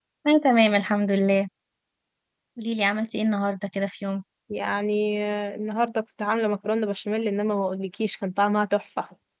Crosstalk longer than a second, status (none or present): none